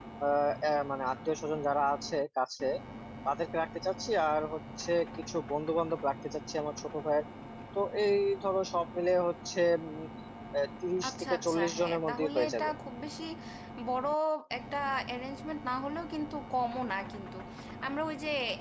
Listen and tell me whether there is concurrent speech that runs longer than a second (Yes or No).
Yes